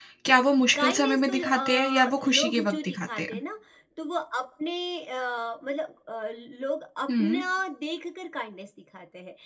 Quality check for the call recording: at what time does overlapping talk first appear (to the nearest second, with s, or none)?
1 s